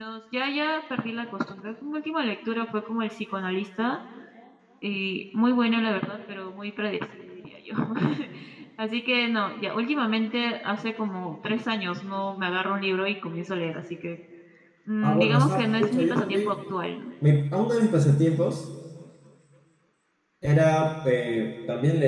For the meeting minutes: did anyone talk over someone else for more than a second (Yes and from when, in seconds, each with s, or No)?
Yes, from 15.0 s